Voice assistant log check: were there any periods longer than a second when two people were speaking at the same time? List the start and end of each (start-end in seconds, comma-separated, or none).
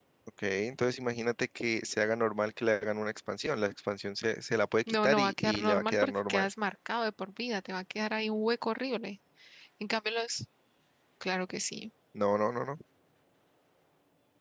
5.0-6.4